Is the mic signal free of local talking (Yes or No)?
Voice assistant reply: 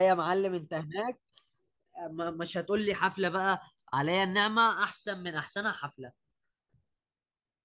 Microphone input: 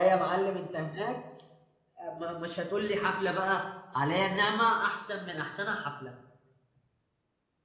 Yes